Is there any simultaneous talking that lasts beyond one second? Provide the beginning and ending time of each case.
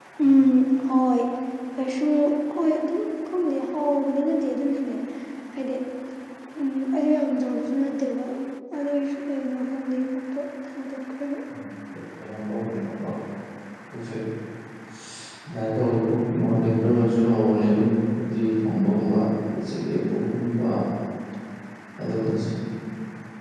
none

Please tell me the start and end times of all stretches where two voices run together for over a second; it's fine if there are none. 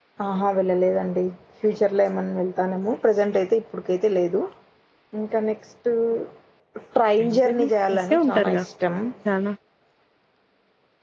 7.2-8.6

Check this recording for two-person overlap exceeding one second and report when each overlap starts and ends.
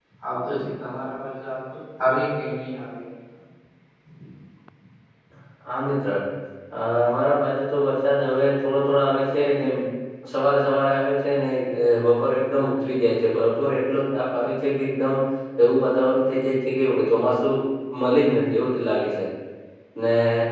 none

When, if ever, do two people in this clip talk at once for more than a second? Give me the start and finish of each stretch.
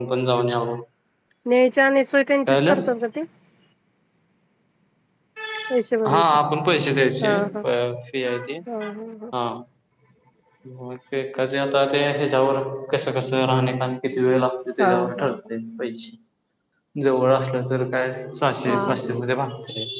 none

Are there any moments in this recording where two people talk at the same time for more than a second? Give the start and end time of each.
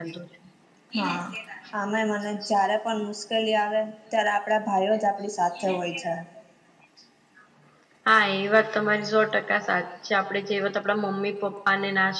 none

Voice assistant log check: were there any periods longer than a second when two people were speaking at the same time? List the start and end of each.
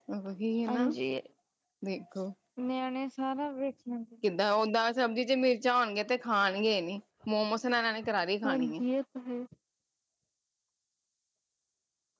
none

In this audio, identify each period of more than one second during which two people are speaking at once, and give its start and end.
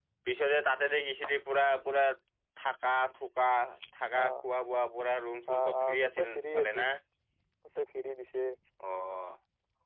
5.6-6.9

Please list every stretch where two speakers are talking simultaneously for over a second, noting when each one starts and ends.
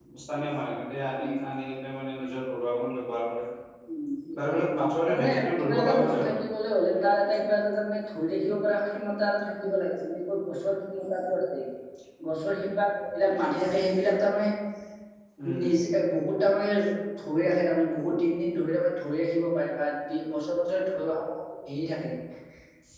5.1-6.3

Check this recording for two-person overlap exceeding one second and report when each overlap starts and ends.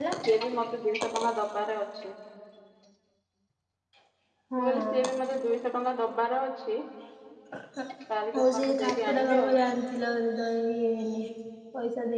8.3-9.6

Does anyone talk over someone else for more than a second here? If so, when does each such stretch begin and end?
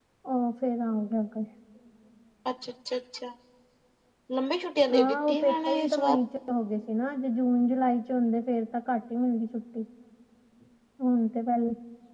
4.9-6.2

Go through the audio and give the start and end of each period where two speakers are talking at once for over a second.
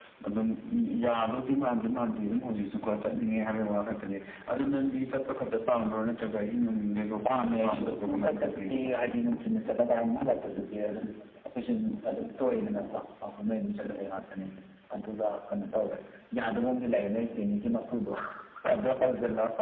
7.3-8.7

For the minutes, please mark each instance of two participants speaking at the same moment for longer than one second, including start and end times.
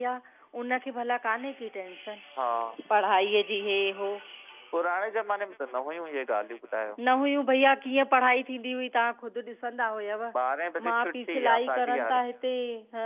10.9-12.2

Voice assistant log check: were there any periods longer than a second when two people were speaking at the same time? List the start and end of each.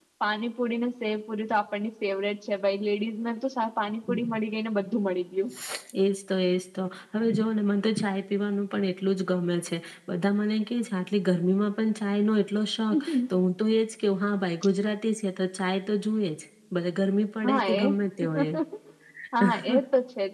none

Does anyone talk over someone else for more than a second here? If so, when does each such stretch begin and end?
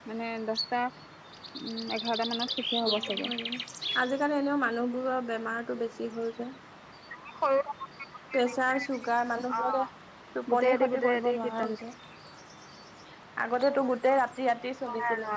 10.5-11.8

